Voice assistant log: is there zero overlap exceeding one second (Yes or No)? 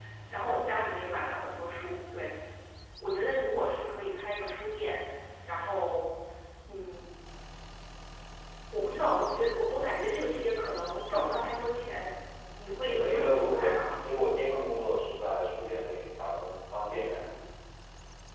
No